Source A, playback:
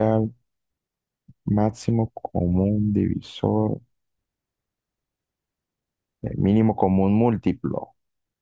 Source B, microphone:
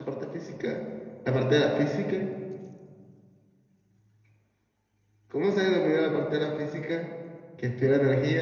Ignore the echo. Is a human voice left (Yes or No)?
Yes